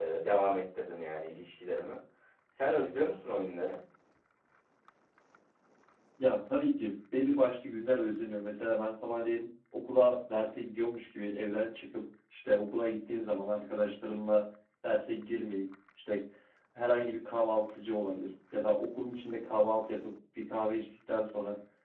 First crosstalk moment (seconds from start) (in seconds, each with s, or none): none